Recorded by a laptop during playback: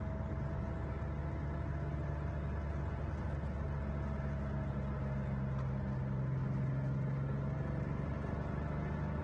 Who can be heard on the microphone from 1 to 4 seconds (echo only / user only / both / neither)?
neither